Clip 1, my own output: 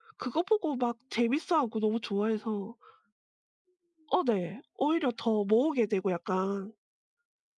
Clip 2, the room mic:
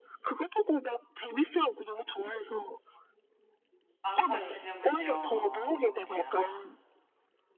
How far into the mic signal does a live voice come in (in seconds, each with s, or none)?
4.0 s